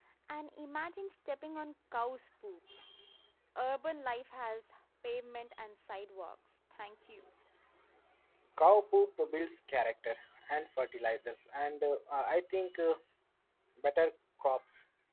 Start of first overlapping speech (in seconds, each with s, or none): none